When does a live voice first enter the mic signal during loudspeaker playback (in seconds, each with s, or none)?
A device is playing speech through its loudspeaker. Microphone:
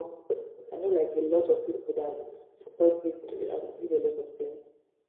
none